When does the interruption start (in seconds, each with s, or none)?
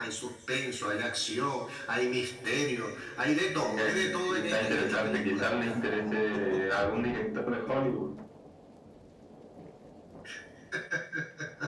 3.6 s